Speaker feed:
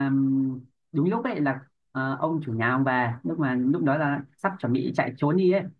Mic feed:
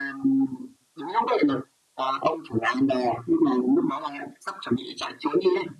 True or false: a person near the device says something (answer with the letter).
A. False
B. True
A